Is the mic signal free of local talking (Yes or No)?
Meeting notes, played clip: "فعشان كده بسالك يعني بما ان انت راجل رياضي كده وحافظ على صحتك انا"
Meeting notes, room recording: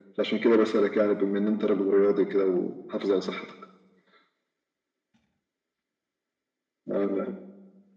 Yes